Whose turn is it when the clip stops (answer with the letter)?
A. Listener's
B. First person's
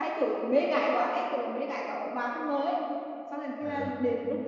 B